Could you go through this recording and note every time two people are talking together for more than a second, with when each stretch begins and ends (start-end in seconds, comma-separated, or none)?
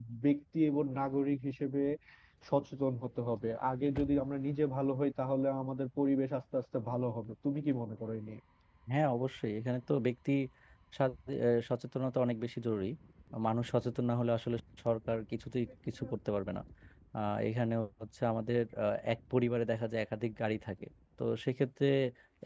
none